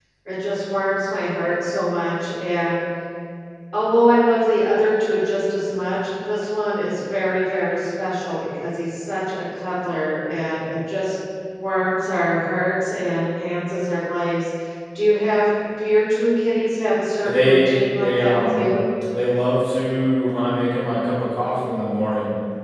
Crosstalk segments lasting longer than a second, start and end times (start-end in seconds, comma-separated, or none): 17.2-18.6